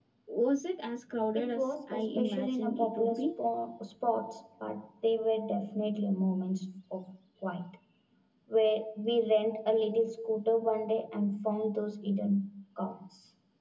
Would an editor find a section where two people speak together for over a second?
Yes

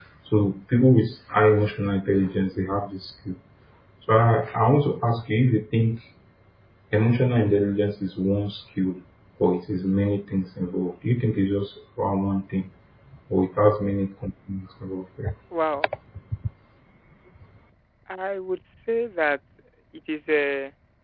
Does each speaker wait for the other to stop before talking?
Yes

